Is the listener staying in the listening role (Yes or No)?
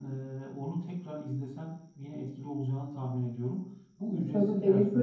No